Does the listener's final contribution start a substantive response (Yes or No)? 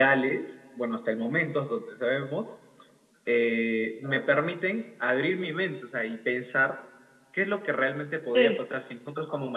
No